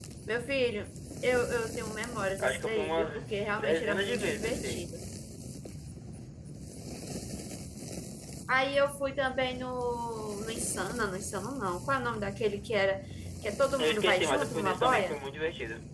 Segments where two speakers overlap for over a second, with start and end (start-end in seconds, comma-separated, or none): 2.4-4.9, 13.8-15.2